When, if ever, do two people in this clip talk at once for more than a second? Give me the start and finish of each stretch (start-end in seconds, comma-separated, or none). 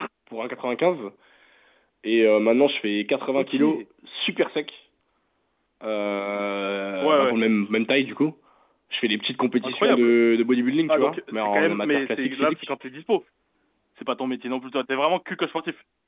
10.9-12.7